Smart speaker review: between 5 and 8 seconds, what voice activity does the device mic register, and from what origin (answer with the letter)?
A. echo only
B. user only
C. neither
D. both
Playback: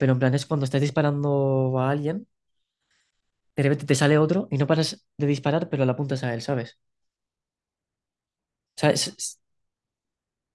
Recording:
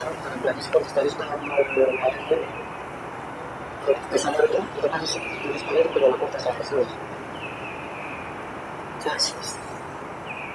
A